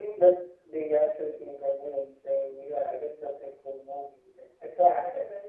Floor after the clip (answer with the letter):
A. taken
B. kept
A